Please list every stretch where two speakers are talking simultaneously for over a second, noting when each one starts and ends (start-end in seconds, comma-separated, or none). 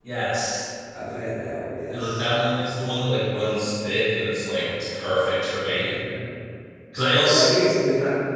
none